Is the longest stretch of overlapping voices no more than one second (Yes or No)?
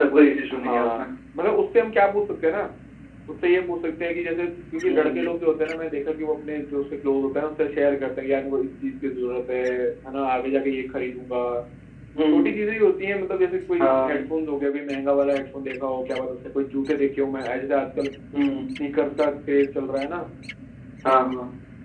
Yes